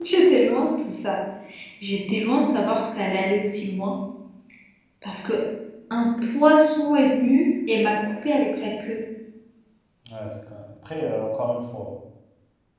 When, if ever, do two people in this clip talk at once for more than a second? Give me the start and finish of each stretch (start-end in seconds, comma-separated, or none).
none